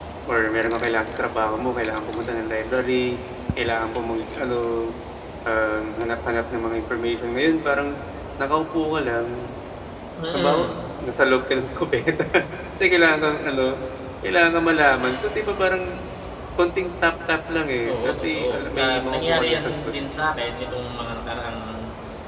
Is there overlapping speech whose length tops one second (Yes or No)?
Yes